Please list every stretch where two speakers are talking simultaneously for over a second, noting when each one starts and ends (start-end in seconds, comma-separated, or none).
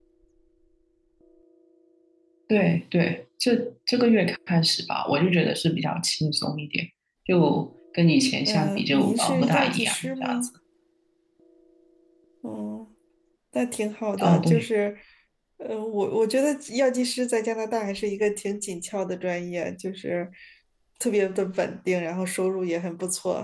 8.4-10.5